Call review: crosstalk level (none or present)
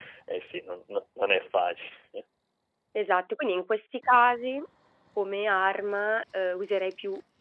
none